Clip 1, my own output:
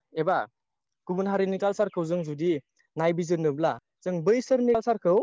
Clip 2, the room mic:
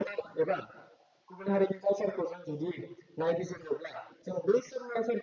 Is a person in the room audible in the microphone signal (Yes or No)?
No